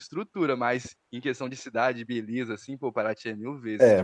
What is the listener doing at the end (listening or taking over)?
taking over